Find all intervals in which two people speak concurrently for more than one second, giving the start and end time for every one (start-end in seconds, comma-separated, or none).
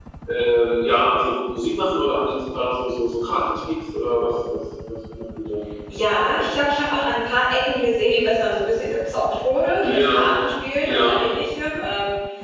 none